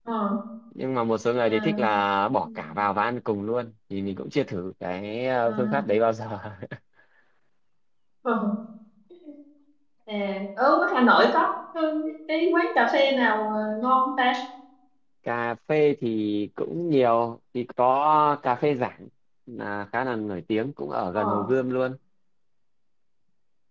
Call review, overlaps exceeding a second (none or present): none